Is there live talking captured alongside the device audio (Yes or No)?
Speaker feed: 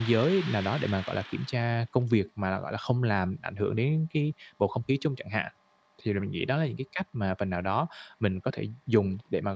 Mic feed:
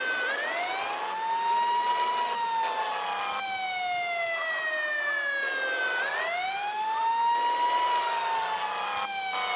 No